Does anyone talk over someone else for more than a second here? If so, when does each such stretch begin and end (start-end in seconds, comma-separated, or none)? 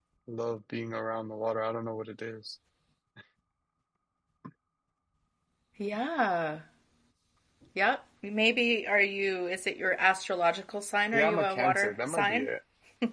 11.1-12.5